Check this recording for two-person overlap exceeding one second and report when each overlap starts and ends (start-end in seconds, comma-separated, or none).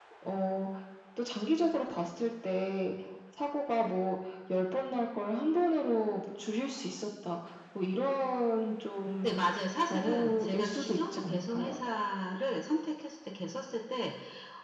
9.9-11.7